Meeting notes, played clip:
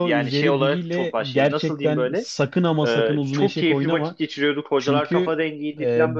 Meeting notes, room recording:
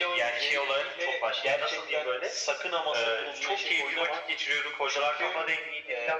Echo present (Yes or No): Yes